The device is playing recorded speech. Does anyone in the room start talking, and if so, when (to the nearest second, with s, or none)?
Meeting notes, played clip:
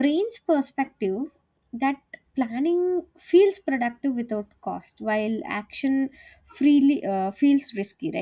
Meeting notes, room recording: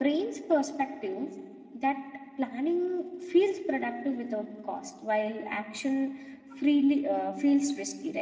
none